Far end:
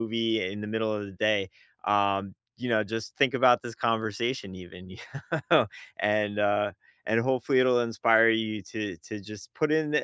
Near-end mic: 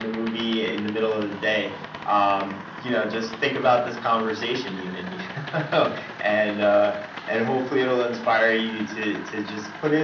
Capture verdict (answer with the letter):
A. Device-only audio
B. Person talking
A